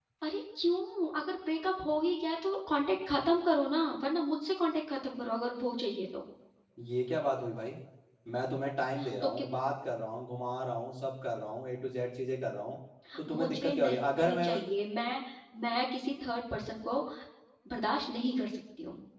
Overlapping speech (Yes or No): Yes